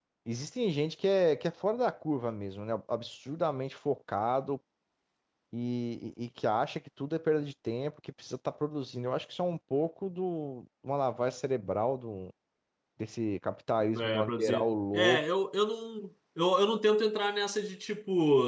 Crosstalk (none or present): present